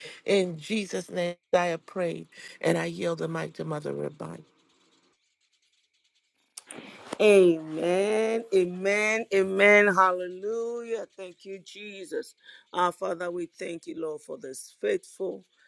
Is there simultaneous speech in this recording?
No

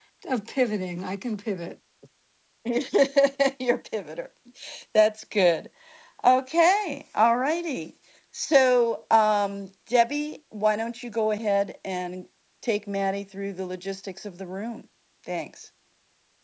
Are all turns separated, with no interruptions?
Yes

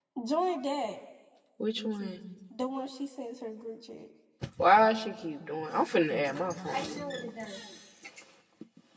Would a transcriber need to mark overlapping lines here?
No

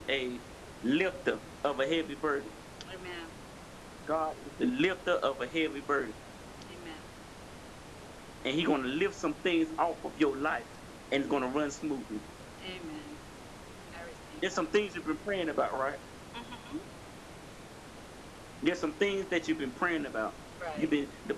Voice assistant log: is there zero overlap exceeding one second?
Yes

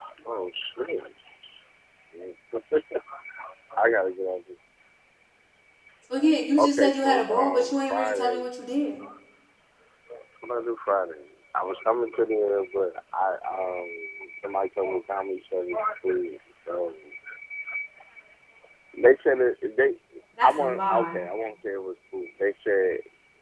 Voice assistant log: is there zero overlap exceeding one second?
No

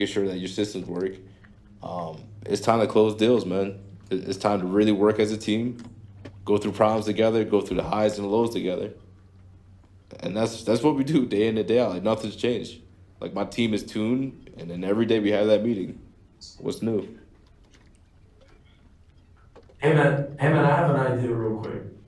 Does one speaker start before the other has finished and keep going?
No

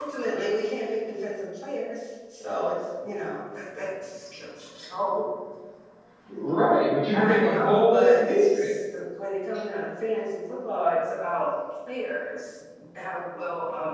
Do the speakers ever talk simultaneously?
Yes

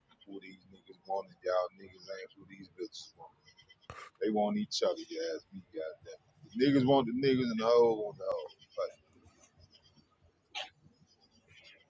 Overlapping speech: No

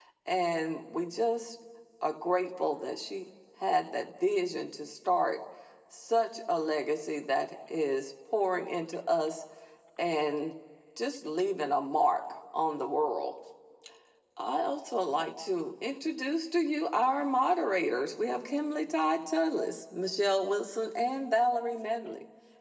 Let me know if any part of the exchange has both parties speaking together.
No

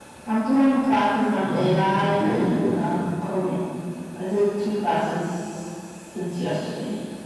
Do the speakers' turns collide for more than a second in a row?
Yes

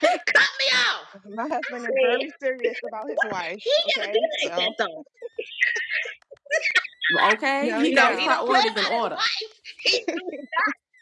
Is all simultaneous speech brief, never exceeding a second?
No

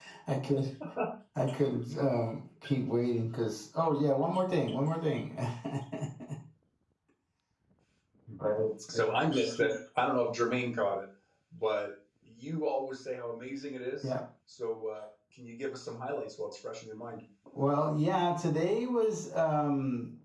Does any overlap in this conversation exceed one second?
No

